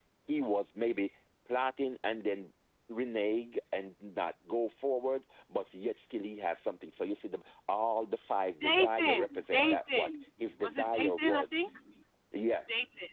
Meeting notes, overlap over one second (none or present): present